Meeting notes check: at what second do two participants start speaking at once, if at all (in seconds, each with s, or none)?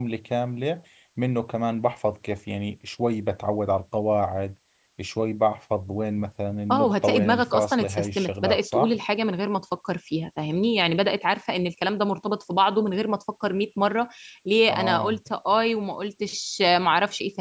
6.7 s